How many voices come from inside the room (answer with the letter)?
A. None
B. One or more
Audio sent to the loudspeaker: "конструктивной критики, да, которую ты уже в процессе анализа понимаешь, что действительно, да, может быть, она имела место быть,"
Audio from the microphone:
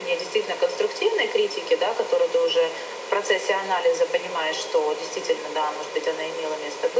A